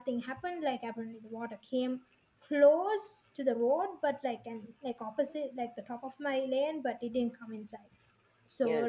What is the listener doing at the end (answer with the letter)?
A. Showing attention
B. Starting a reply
A